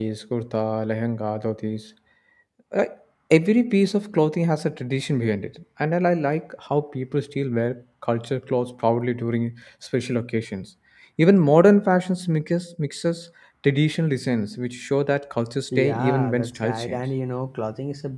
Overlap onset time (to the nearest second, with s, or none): 16 s